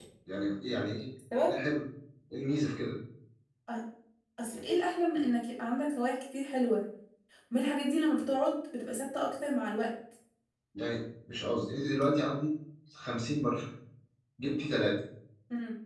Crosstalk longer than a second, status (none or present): none